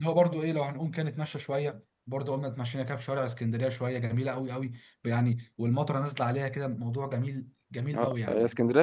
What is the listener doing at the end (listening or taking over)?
taking over